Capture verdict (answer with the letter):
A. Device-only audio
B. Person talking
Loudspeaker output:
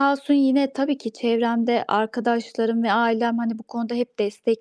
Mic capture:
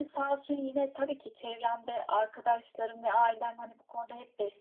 A